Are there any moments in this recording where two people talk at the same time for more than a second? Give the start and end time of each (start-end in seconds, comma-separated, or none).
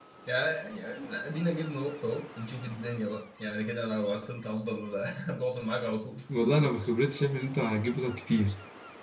none